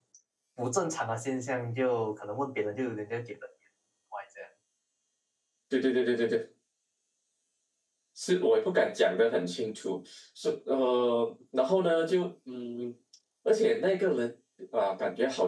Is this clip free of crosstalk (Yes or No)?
Yes